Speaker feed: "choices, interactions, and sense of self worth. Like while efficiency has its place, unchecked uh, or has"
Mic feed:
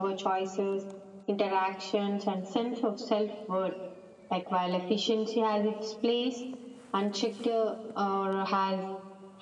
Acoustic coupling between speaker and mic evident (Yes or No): Yes